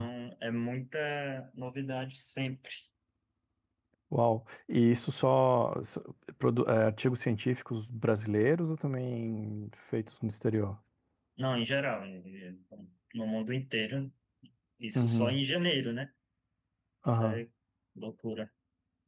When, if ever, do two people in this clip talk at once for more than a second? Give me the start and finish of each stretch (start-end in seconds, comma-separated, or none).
none